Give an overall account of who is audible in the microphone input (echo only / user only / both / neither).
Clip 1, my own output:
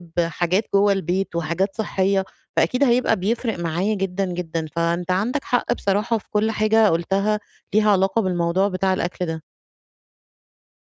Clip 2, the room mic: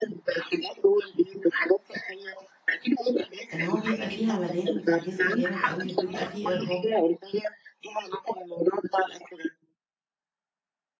both